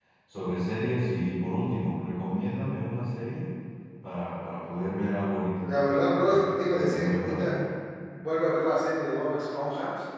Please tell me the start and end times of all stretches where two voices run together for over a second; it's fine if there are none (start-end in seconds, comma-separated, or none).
5.6-7.5